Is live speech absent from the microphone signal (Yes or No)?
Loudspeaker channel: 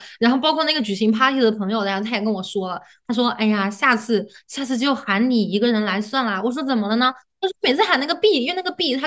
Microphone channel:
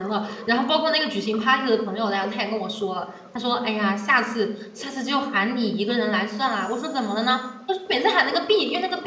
Yes